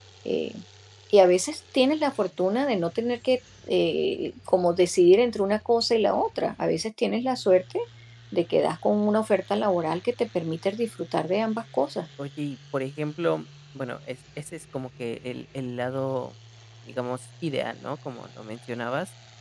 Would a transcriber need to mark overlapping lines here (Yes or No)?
No